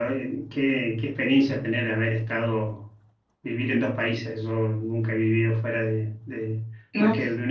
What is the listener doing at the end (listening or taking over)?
listening